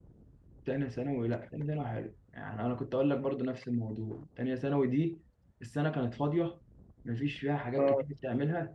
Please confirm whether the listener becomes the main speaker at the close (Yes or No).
No